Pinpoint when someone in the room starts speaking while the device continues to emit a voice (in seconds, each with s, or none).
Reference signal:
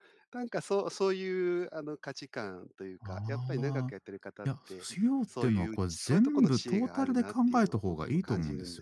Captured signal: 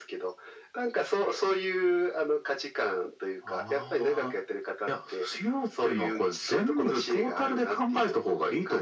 none